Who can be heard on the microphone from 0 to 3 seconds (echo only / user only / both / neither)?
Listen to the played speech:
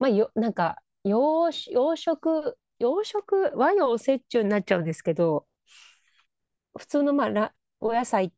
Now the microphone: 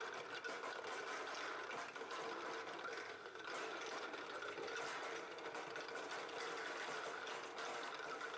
neither